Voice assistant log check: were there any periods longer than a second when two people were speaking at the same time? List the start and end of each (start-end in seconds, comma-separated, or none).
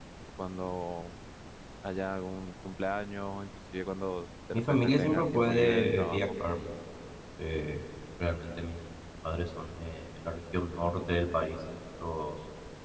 4.5-6.2